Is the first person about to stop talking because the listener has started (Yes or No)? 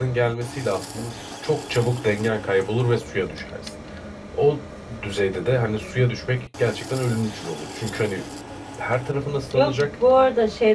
Yes